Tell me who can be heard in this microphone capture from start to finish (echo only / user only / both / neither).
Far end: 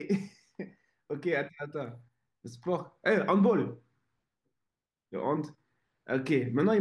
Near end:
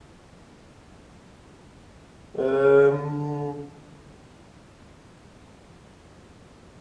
user only